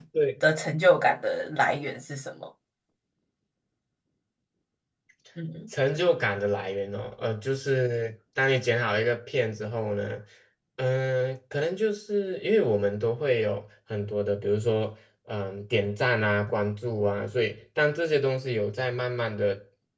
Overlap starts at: none

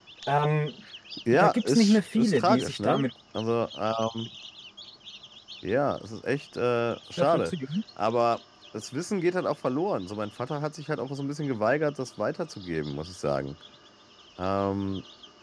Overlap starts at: 1.3 s

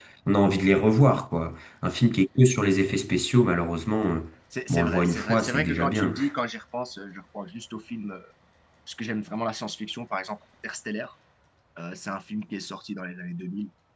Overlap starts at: 4.7 s

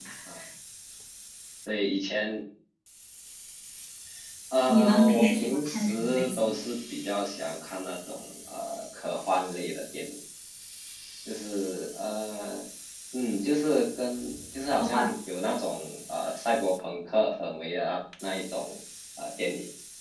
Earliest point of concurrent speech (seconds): 4.7 s

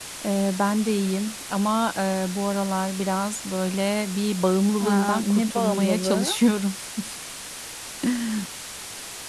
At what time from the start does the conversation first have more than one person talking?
4.8 s

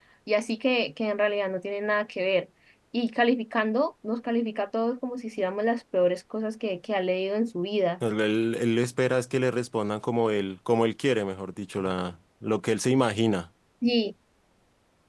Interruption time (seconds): none

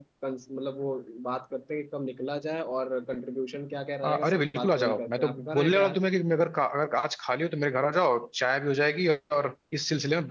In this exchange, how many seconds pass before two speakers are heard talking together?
4.0 s

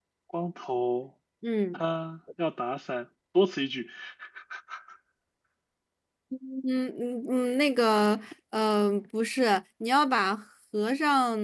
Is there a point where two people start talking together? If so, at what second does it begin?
none

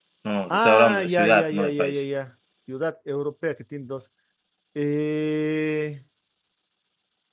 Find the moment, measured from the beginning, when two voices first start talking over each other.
0.5 s

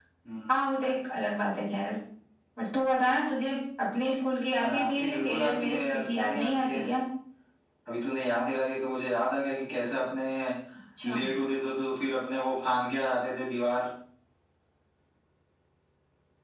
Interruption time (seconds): 4.6 s

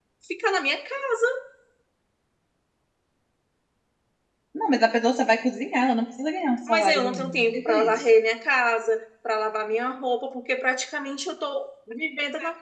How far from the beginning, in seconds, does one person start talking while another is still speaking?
6.7 s

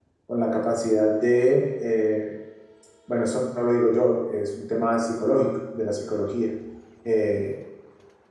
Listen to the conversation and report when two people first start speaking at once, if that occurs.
none

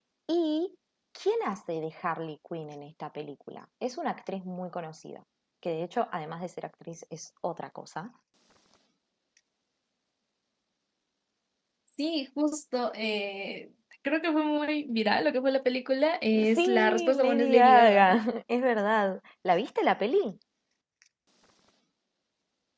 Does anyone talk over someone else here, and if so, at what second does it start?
16.3 s

